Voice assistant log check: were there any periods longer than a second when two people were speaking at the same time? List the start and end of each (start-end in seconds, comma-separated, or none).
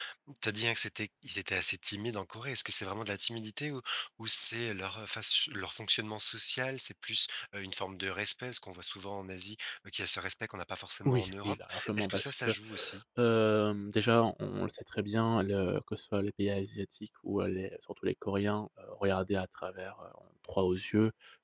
11.1-12.5